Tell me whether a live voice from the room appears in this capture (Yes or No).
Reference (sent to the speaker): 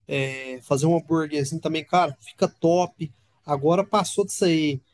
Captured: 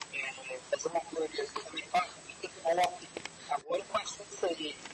No